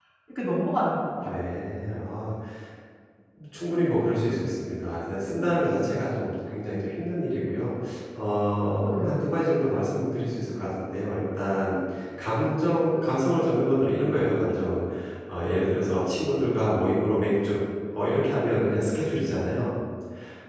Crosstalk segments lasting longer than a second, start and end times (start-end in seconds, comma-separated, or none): none